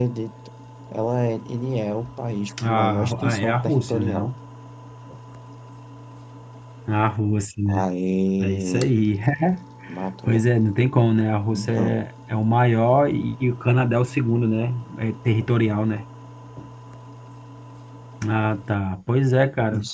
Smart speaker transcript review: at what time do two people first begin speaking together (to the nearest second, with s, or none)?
3 s